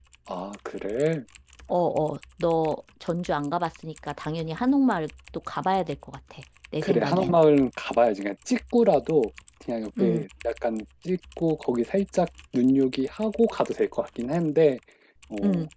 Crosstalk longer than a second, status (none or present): none